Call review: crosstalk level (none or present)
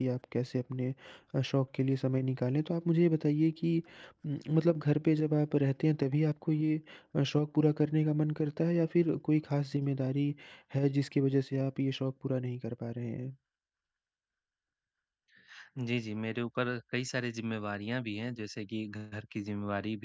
none